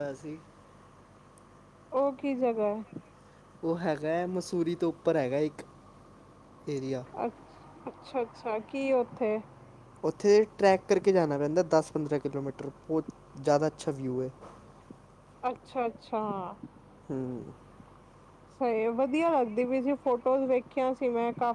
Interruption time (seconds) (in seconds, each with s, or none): none